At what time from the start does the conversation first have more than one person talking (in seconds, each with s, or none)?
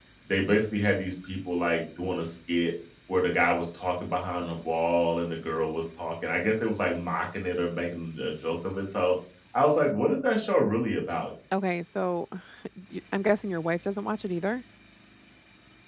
none